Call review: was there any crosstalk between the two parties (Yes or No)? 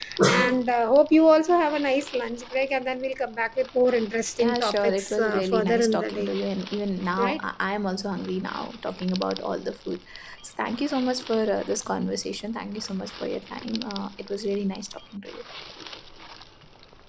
Yes